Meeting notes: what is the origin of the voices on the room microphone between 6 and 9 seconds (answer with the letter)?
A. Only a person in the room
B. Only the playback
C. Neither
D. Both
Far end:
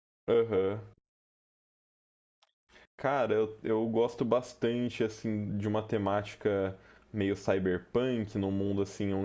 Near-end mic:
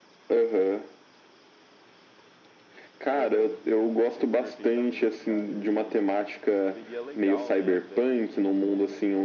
D